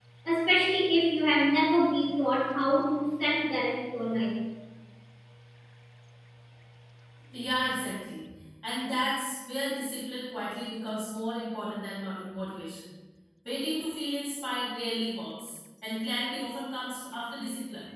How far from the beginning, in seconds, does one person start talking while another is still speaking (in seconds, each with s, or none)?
none